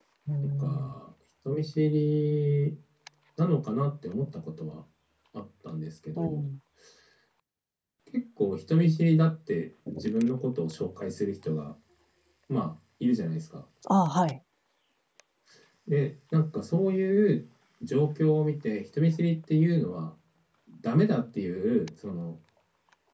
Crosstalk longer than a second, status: none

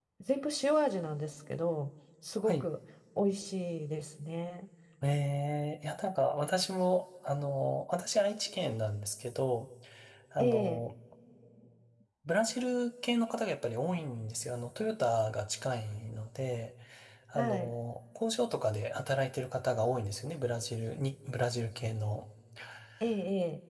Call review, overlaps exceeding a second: none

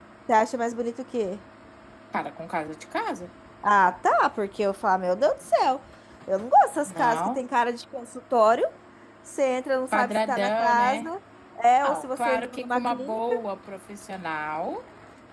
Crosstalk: present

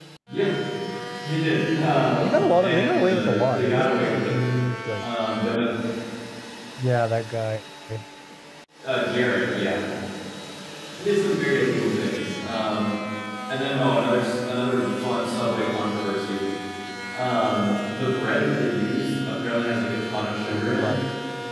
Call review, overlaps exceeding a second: present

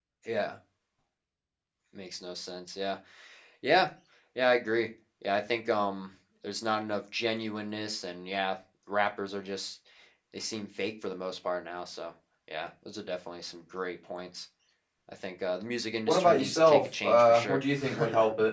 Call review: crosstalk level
present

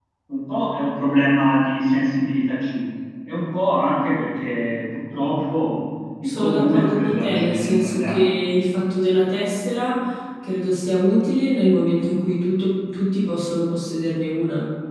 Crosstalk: present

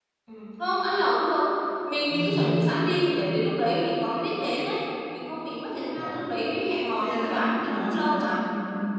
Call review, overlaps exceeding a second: present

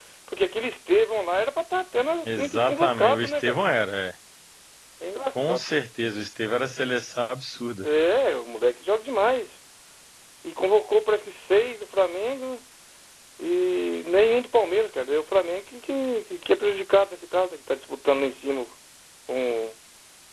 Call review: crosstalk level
present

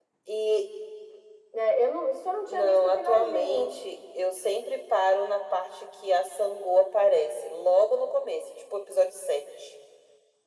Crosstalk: present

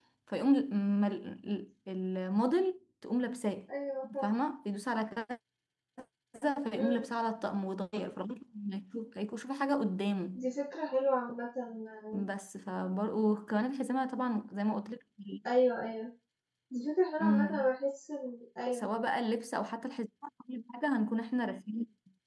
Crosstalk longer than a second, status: none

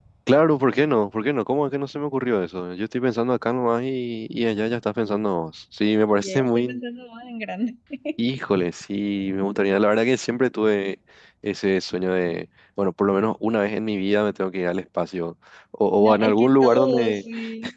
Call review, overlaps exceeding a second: present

